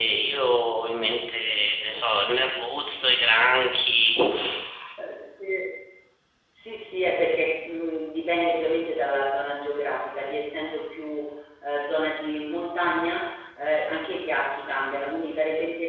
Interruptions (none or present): none